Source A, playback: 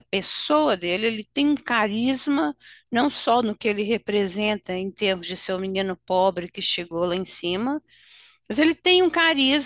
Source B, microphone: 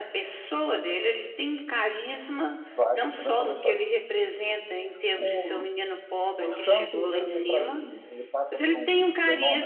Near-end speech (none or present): present